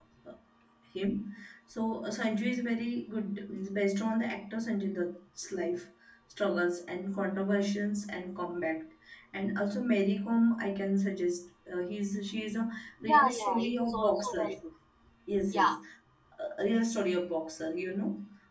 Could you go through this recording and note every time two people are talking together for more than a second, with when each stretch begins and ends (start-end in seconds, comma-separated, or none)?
13.0-14.5